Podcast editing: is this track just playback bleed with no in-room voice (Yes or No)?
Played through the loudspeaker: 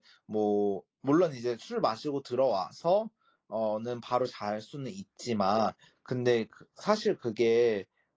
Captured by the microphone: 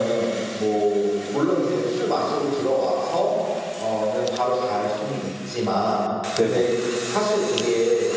No